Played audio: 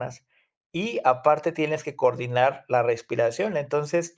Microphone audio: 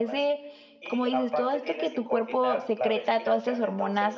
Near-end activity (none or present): present